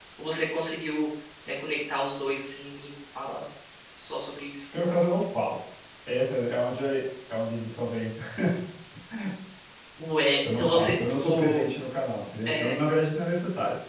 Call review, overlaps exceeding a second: present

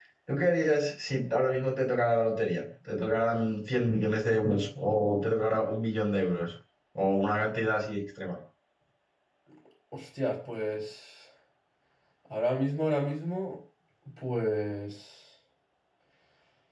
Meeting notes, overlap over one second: none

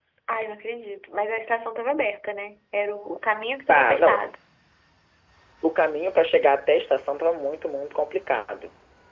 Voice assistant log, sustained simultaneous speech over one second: none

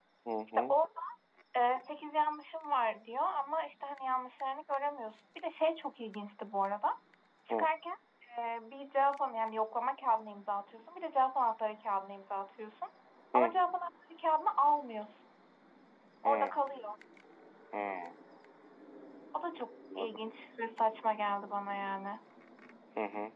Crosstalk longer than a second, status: none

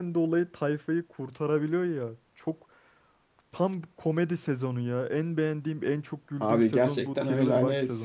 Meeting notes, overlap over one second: present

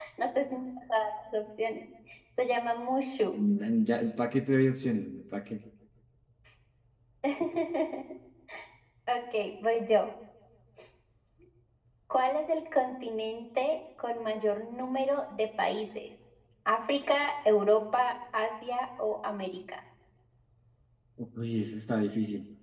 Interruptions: none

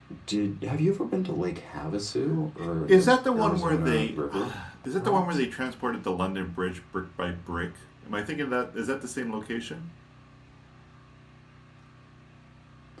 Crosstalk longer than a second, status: present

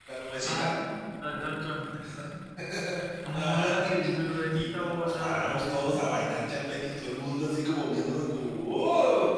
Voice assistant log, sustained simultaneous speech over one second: present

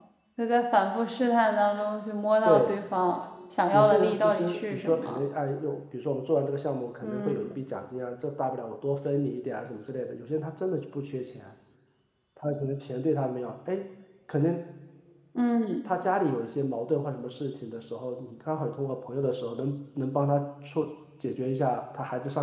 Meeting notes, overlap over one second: present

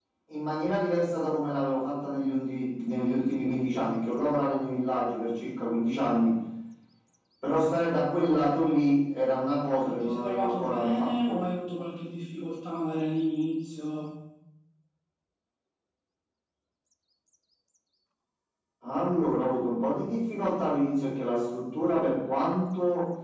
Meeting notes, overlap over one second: present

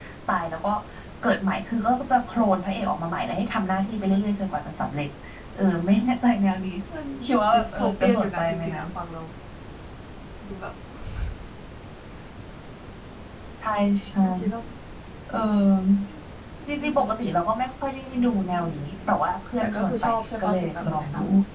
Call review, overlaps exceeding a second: present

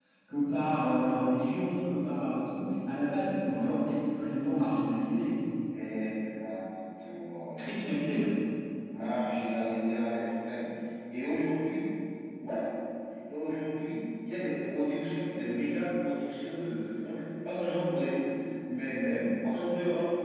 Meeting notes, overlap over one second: none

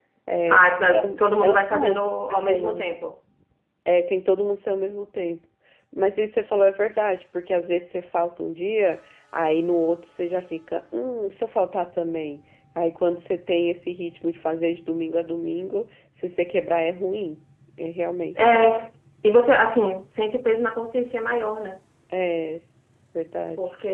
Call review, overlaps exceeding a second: present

